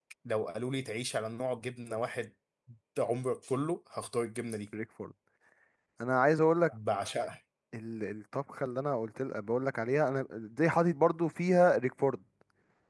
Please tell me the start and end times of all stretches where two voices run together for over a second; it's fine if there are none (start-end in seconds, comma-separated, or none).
none